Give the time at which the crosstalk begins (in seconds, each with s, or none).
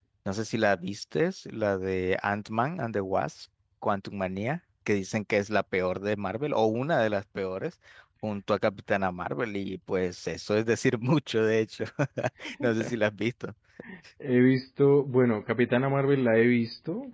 none